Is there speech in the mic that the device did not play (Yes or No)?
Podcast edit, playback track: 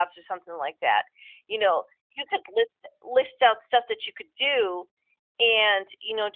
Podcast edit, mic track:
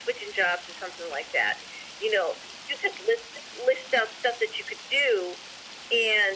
No